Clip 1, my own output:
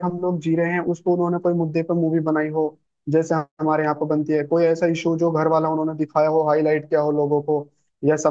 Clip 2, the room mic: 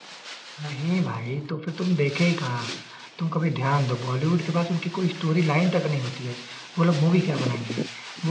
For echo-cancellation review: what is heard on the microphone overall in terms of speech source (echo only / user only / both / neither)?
user only